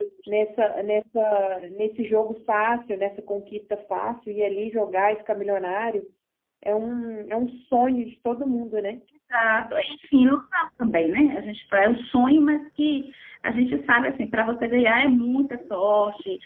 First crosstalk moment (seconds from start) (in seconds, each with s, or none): none